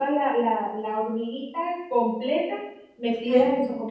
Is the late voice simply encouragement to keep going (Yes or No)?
Yes